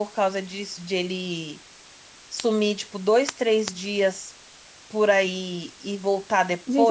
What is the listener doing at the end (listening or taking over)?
taking over